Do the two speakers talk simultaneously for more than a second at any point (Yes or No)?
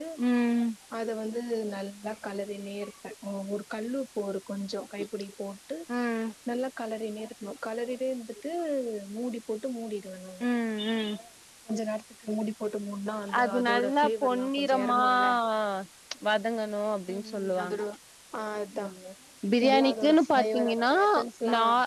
Yes